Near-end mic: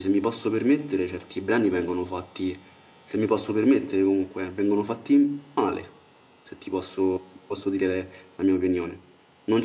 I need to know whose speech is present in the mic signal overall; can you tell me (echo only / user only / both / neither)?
user only